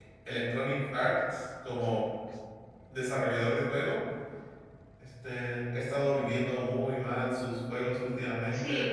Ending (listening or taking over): taking over